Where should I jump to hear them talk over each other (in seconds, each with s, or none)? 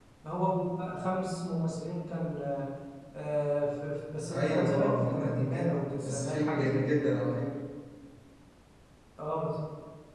4.3 s